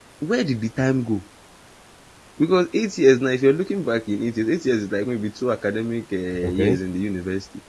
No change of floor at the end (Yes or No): Yes